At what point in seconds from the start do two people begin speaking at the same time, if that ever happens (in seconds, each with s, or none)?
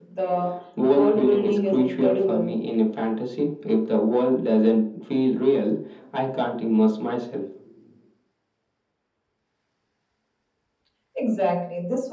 0.9 s